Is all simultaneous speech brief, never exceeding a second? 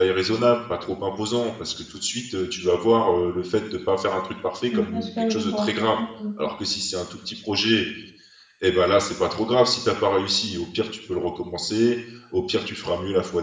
No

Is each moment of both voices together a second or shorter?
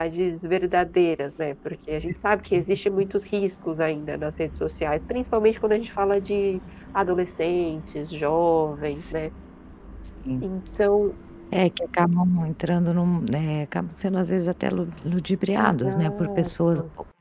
No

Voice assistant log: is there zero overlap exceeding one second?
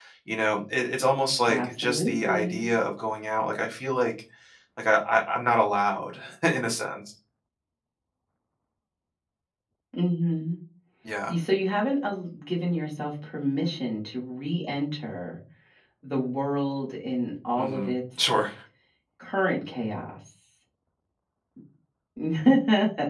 No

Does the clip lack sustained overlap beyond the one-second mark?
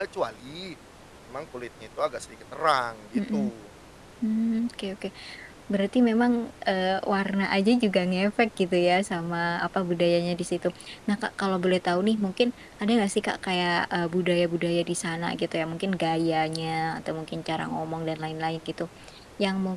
Yes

